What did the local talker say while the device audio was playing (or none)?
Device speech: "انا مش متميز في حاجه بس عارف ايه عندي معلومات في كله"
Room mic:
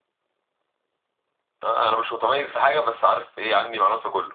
none